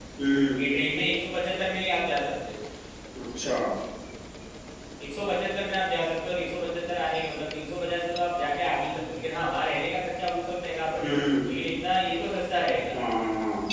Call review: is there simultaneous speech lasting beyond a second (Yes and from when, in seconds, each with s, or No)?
No